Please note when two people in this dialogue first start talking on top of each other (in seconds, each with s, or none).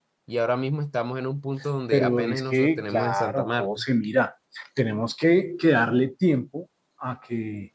1.9 s